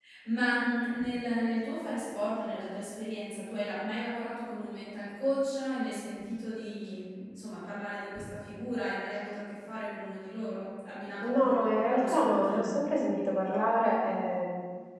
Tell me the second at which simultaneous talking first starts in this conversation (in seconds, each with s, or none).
11.2 s